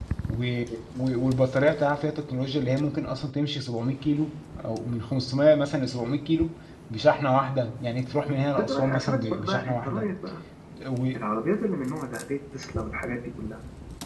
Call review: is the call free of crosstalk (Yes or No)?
No